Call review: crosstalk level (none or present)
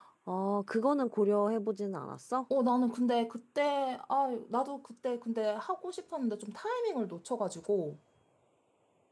none